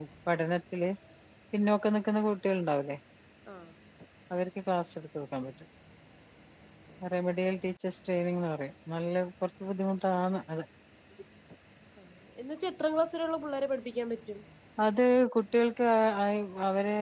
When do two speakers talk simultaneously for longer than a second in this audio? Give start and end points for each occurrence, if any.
none

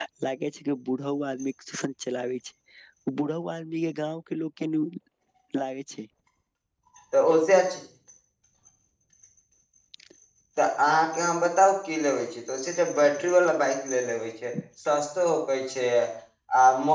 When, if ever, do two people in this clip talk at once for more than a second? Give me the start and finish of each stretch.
none

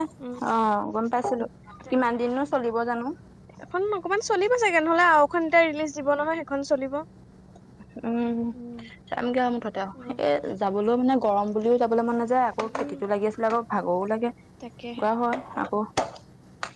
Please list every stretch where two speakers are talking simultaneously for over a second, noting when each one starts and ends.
none

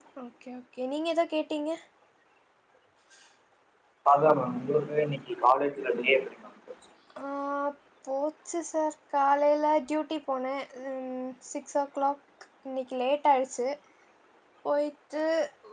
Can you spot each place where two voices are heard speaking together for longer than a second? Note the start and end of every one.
none

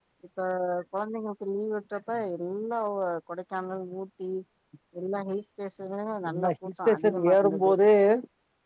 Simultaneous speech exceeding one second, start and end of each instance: 6.3-7.7

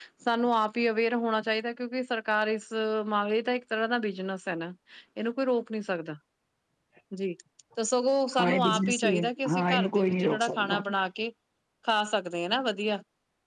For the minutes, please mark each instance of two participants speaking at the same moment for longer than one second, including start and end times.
8.4-10.8

